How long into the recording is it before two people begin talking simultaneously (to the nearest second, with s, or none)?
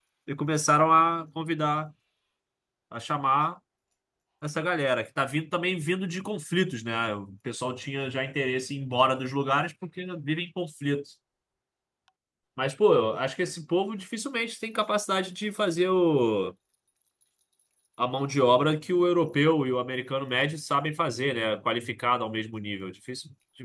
none